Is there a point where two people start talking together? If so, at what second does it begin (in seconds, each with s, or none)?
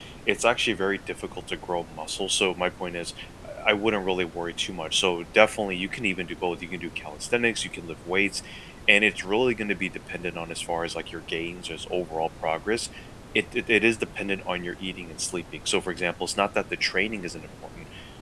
none